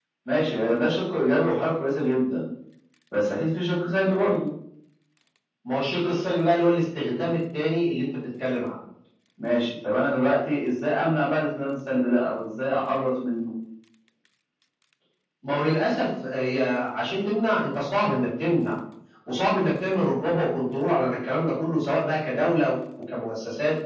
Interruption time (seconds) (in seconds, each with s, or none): none